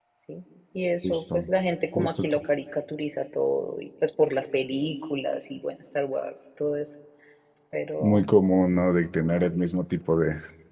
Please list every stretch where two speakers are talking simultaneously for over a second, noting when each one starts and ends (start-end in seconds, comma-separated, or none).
none